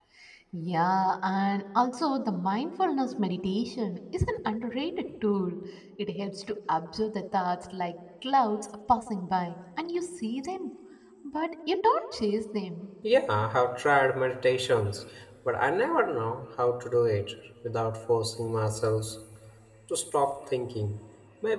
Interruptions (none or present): none